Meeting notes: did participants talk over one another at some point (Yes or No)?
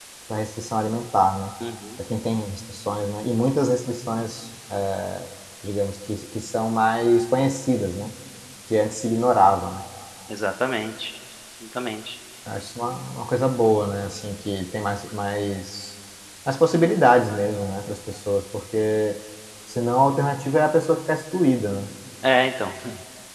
No